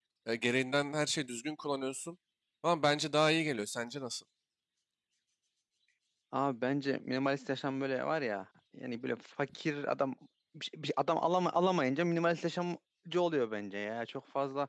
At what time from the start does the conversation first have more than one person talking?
none

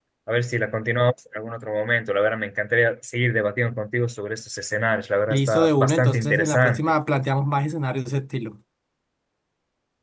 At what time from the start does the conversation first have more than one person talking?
5.3 s

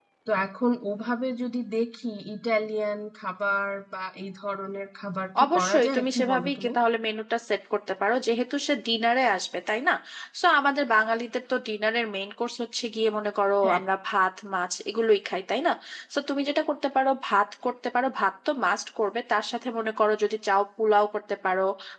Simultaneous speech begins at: 5.4 s

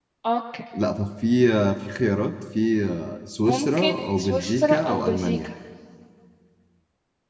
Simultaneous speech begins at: 3.4 s

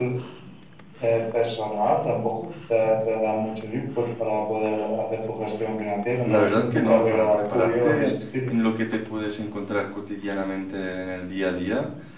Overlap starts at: 6.2 s

